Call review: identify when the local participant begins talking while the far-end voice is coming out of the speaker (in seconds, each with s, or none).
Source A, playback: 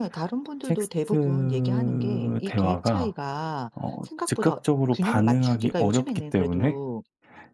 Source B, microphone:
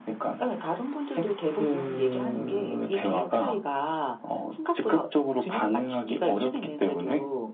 none